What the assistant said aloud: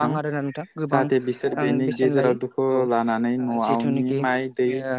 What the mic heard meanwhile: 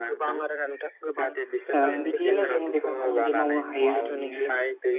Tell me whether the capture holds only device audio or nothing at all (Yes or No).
No